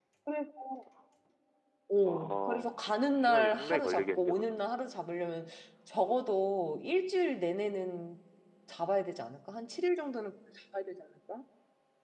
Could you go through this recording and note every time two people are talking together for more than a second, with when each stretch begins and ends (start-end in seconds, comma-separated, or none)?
2.0-4.6